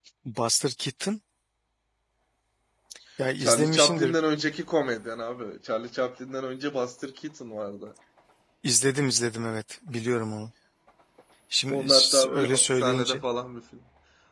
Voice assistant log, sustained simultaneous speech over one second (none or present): present